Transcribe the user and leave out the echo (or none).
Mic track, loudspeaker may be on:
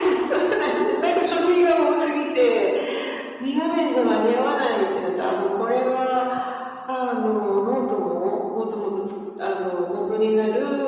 none